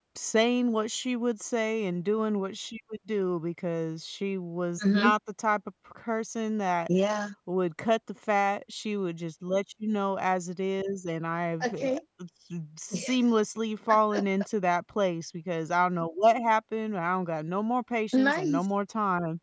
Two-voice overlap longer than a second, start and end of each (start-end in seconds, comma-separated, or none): none